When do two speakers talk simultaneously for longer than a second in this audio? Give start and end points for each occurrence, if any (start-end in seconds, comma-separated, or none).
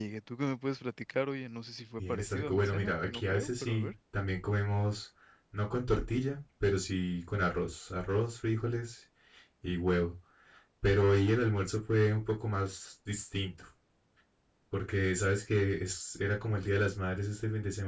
2.0-3.9